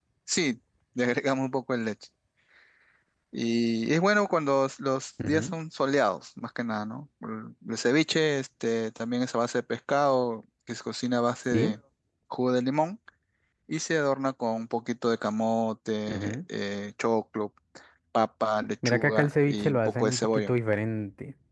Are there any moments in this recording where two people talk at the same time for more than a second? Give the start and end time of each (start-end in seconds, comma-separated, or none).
18.9-20.5